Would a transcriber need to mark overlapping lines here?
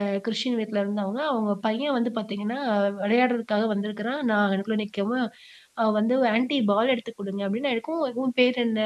No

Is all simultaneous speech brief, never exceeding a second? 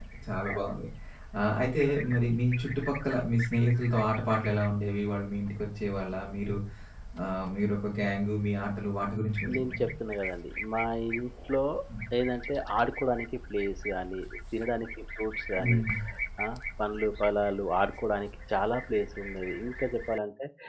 Yes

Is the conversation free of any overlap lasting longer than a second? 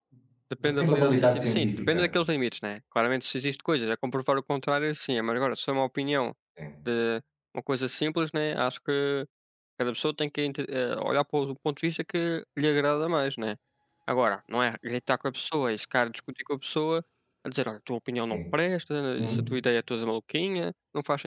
No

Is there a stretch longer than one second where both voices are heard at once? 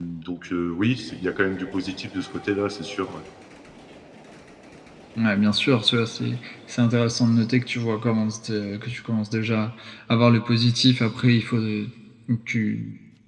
No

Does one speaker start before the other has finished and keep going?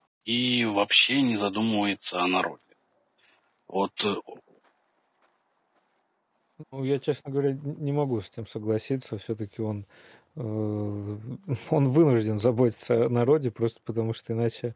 No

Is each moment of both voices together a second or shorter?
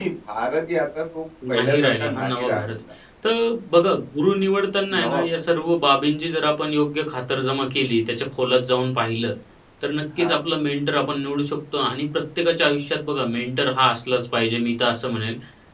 No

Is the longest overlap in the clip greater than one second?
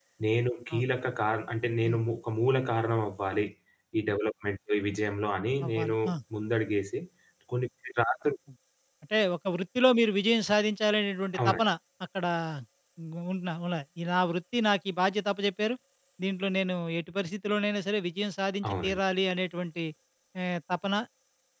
No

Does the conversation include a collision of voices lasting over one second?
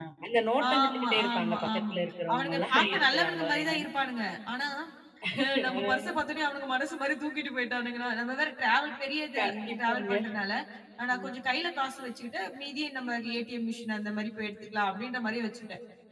Yes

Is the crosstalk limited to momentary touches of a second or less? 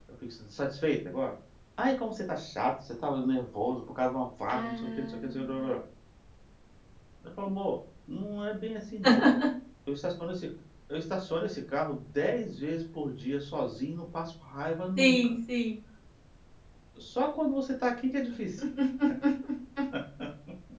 No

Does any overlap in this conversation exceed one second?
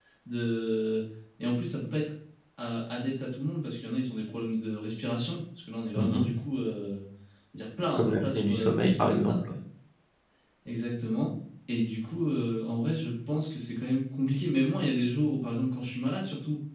Yes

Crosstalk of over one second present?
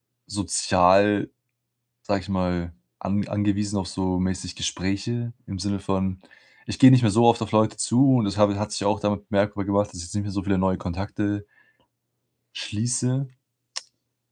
No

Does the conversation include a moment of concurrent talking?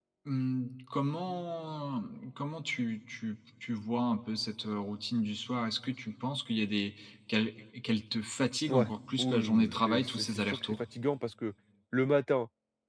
Yes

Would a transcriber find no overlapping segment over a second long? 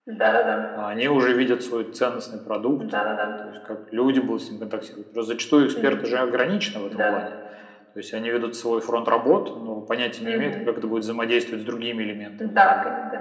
Yes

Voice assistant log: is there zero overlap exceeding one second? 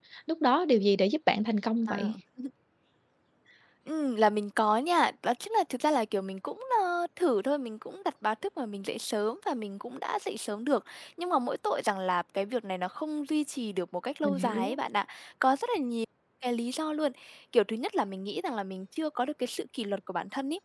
Yes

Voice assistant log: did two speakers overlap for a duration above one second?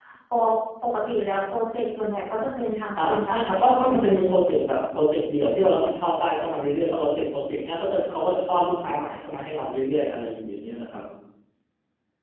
Yes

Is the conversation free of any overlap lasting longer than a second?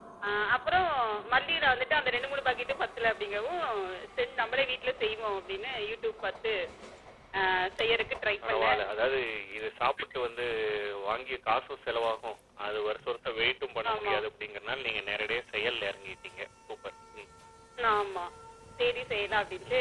Yes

